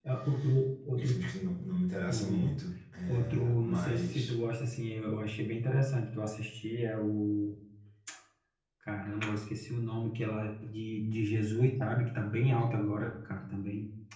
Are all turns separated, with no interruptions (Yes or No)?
No